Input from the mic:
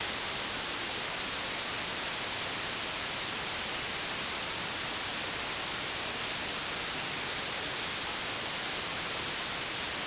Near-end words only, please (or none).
none